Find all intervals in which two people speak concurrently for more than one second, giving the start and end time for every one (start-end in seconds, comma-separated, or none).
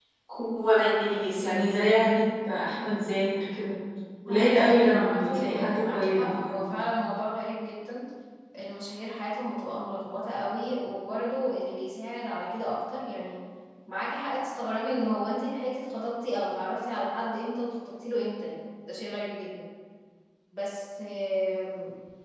4.3-6.6